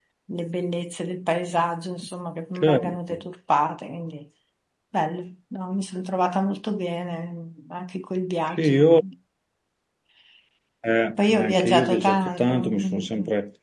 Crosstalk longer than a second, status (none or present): present